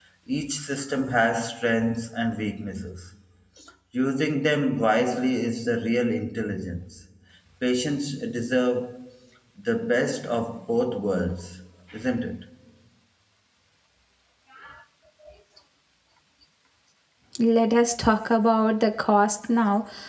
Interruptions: none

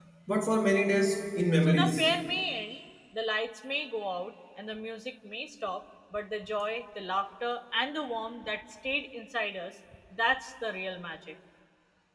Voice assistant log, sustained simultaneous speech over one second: none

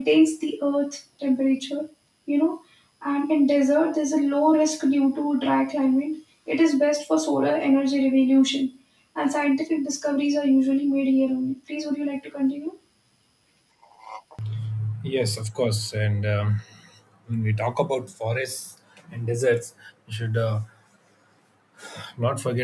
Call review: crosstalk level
none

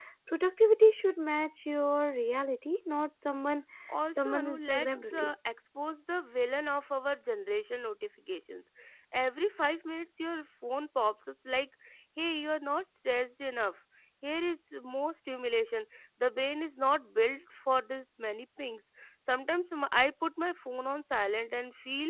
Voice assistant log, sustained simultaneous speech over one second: present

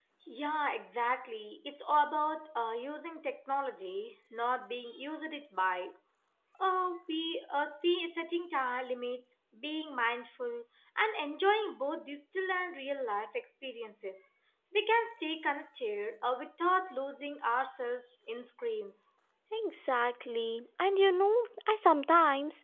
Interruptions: none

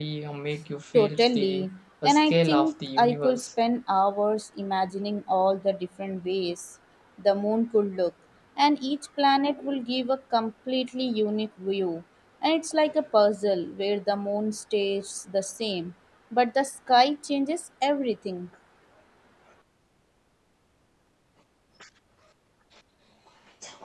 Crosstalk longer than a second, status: present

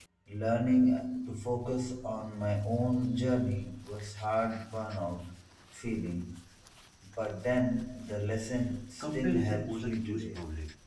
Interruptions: present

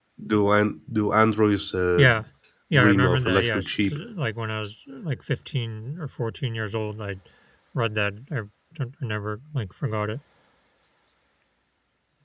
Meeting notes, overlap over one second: present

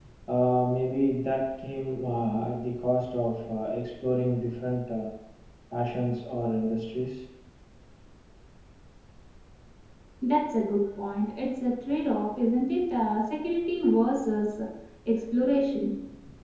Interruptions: none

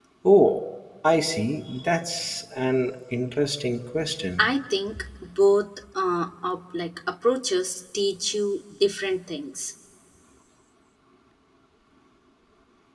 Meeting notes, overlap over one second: none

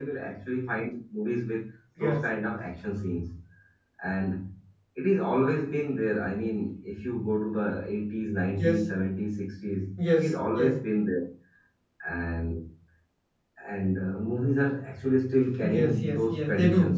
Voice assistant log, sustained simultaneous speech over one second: present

